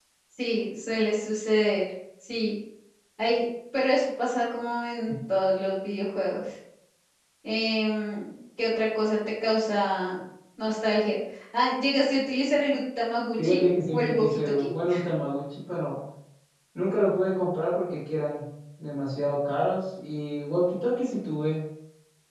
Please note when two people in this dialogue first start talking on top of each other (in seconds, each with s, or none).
13.4 s